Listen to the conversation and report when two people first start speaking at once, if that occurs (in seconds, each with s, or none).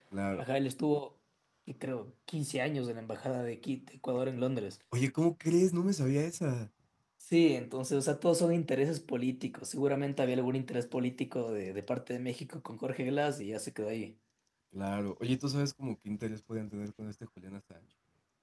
none